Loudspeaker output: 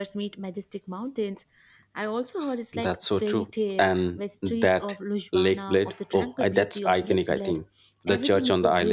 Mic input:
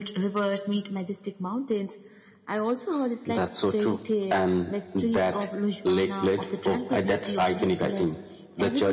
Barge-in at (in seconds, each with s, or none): none